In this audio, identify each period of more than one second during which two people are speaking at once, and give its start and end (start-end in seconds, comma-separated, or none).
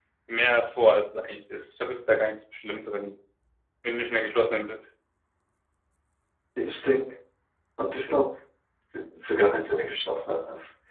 none